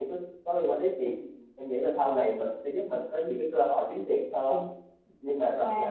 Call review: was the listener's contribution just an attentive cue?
No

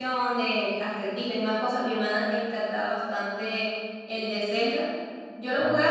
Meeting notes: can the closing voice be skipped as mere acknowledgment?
Yes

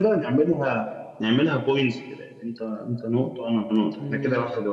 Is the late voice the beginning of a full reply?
Yes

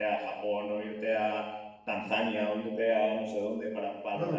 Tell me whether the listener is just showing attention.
No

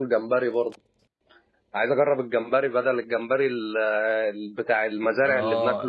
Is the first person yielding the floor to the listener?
Yes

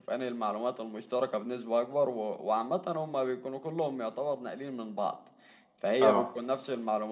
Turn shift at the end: No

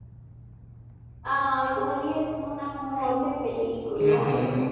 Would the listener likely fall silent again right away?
No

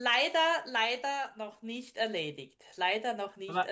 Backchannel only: No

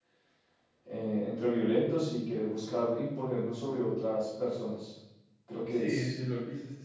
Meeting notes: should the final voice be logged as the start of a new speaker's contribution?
Yes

